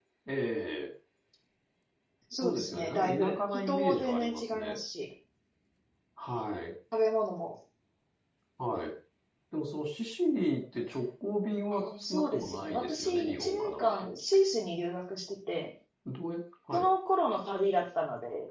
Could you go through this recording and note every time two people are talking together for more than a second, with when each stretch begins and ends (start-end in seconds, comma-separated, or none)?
2.3-4.8, 11.7-14.1